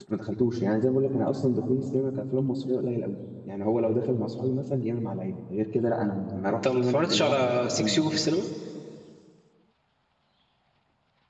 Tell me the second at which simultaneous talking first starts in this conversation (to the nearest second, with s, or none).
7 s